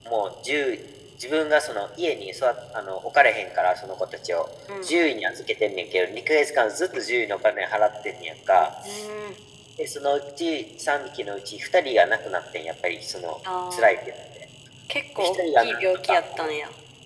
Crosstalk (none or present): present